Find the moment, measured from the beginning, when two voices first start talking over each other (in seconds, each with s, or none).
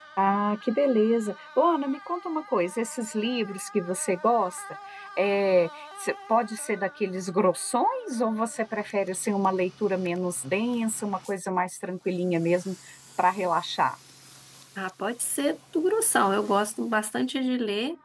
none